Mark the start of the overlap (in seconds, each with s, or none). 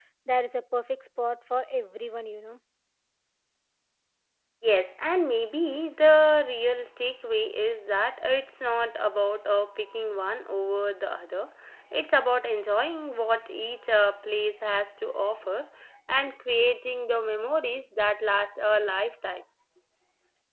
none